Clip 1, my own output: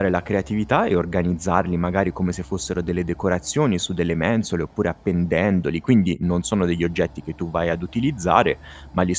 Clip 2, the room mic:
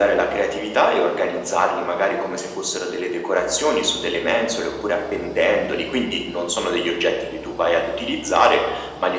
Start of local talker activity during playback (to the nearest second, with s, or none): none